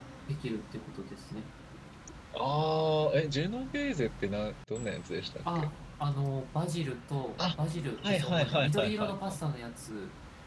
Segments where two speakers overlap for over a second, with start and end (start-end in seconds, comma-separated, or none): 8.0-9.4